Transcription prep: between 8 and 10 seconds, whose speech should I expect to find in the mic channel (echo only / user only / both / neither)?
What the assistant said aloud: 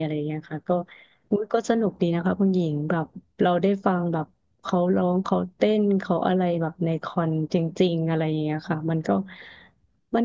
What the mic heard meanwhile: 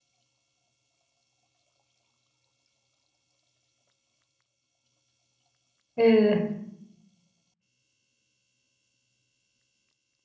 neither